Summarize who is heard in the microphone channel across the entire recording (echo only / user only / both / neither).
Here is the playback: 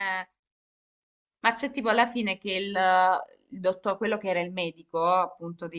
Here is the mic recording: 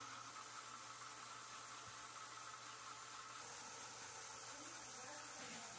neither